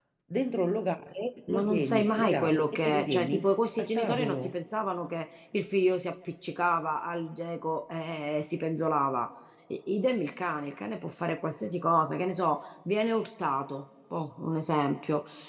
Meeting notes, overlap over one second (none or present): present